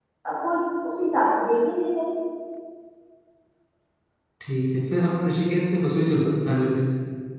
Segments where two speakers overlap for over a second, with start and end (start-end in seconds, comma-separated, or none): none